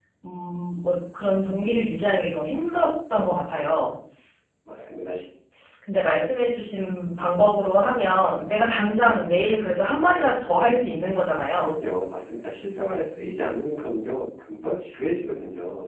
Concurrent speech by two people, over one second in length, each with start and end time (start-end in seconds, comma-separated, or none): none